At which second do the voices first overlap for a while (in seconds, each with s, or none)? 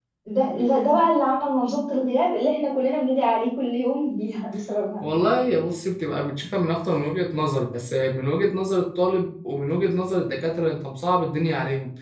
none